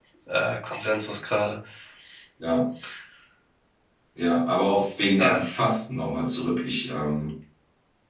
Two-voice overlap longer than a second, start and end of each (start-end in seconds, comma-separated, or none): none